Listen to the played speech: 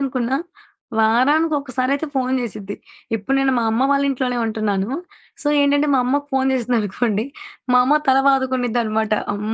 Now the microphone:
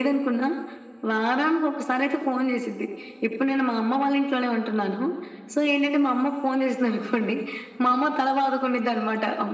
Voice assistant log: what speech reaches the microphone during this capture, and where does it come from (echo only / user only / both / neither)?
echo only